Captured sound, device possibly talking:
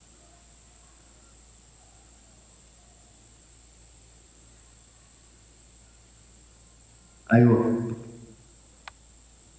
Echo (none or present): none